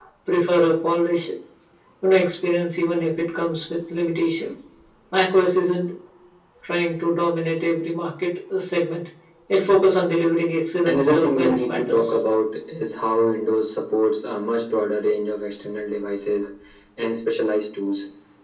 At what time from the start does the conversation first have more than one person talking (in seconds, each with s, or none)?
10.8 s